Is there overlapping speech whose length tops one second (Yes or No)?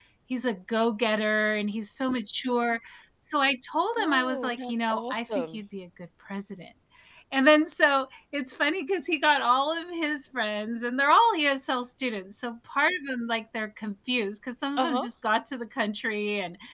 Yes